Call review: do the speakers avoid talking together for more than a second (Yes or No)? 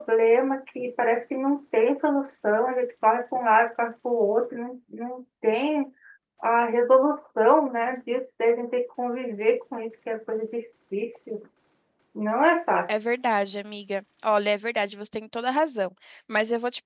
Yes